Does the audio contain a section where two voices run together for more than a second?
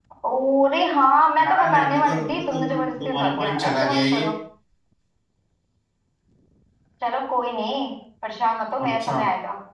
Yes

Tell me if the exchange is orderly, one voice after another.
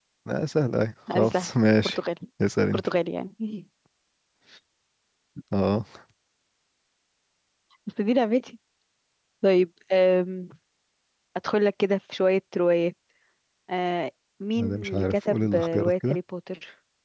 No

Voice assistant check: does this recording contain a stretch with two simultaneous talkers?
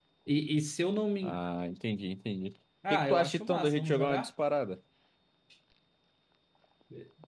Yes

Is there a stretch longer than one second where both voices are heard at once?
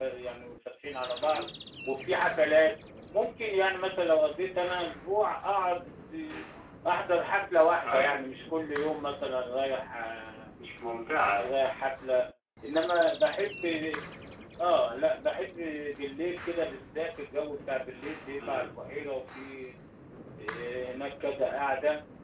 No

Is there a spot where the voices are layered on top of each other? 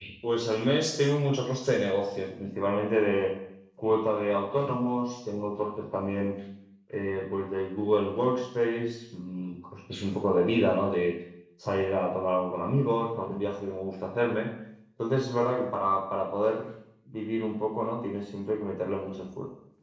No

